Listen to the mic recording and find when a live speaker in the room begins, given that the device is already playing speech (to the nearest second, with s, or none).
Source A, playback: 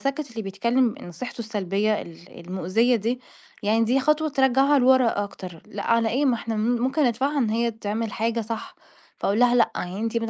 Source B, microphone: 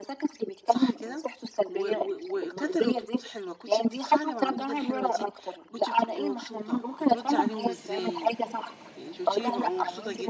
1 s